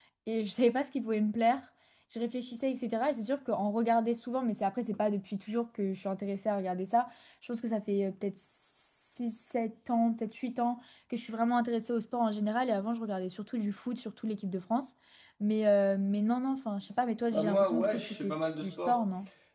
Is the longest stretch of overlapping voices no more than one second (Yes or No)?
No